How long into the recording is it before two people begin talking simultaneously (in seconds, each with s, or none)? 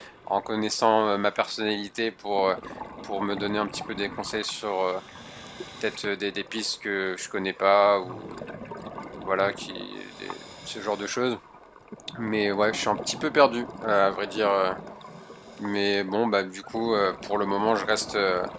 none